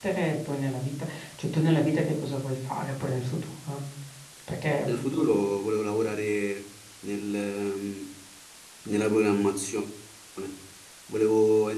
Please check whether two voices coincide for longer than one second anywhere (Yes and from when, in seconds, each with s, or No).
No